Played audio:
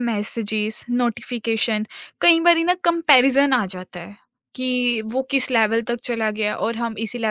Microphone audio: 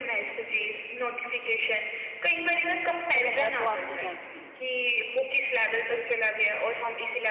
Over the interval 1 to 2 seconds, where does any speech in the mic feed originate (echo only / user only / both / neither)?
echo only